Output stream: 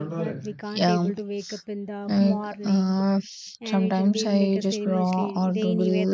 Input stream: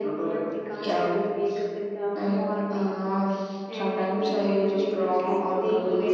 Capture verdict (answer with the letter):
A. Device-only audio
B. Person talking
B